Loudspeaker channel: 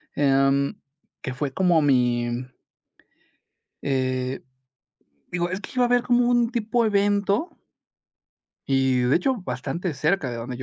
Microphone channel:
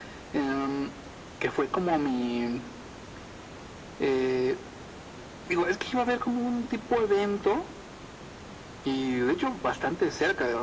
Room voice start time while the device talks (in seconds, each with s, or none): none